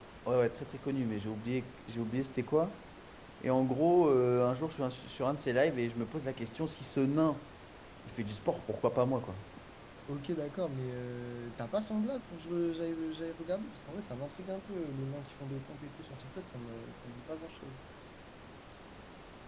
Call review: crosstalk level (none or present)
none